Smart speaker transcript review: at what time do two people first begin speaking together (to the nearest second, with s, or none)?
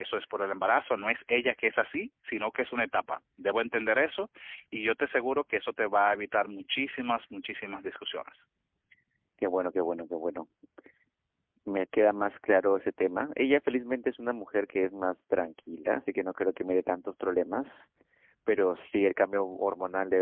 none